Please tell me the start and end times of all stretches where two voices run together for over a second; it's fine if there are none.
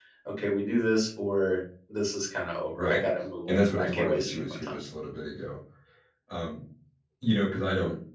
3.5-4.8

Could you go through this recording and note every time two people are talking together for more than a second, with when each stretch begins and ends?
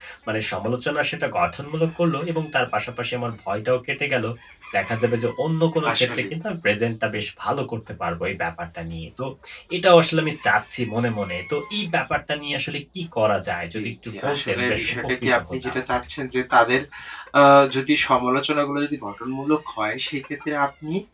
13.8-15.8

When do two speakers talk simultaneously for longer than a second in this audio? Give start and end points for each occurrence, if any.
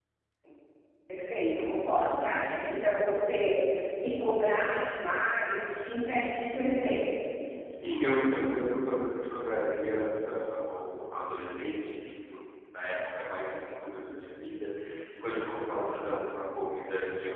none

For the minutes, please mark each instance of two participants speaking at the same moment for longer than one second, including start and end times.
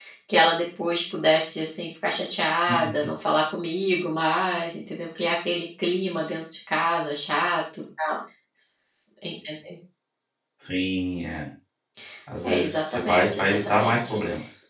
12.4-14.2

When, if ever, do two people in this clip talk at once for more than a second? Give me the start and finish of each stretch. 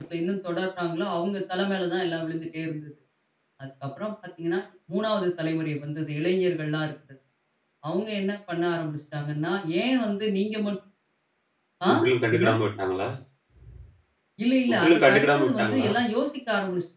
14.7-15.9

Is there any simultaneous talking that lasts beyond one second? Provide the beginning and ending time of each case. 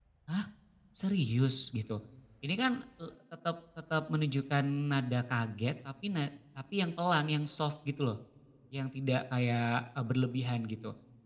none

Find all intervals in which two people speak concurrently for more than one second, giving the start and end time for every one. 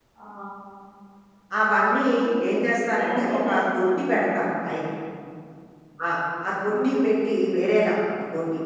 3.0-4.2

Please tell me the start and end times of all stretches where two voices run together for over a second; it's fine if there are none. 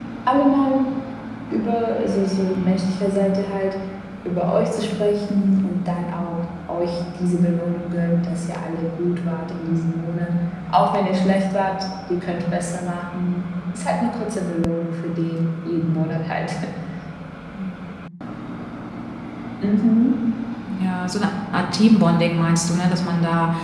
none

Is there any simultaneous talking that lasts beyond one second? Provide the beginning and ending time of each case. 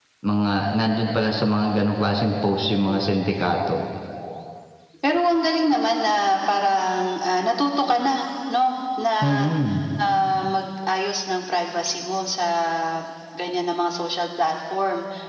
none

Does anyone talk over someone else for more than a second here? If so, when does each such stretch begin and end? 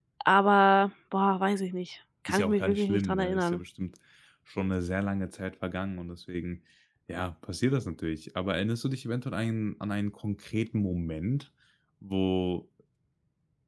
2.3-3.6

